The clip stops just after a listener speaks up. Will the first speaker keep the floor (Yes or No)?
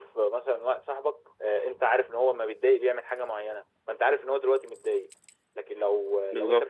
Yes